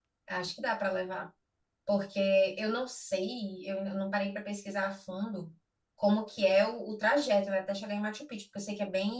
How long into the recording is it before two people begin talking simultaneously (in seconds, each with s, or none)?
none